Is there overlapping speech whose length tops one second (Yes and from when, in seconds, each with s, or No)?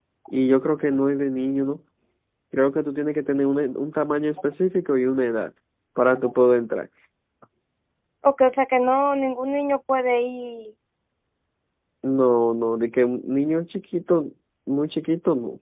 No